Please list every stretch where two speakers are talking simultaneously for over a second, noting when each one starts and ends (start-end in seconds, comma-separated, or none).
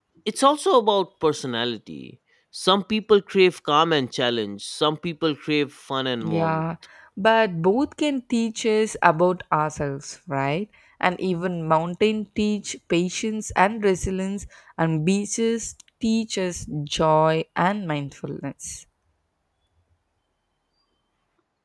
none